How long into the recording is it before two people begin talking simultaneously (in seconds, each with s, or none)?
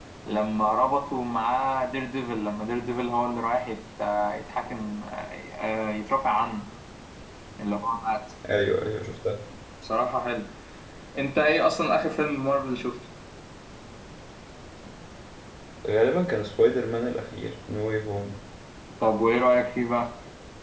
none